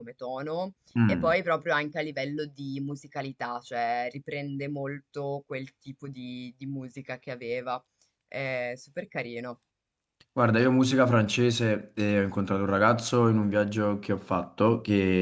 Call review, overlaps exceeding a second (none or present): none